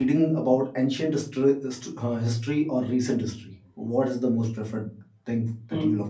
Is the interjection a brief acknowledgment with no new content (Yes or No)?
No